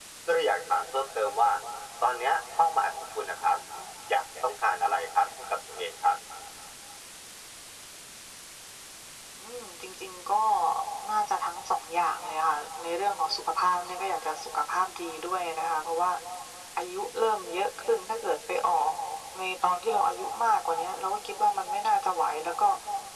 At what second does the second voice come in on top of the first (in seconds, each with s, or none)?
none